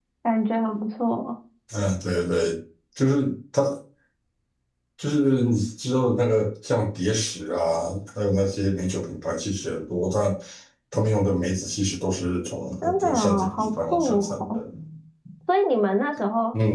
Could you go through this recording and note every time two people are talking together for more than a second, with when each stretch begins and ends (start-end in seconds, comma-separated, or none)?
12.8-14.6